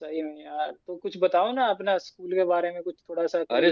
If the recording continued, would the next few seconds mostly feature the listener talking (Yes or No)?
Yes